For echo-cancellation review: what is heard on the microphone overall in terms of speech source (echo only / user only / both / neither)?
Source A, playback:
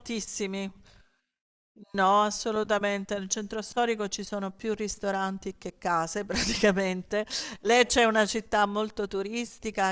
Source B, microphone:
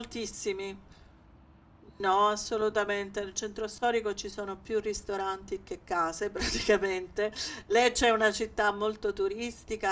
echo only